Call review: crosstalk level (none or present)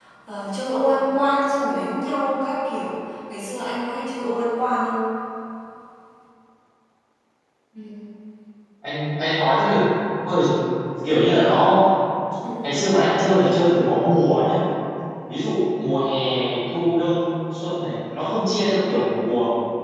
none